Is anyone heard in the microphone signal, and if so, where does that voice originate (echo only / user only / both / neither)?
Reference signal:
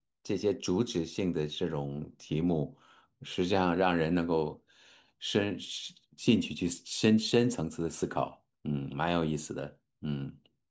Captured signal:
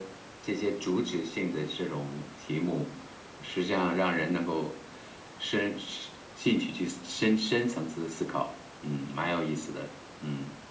echo only